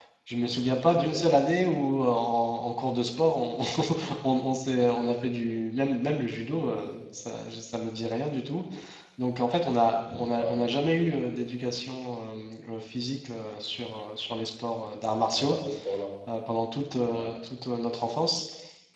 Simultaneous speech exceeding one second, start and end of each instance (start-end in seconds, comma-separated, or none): none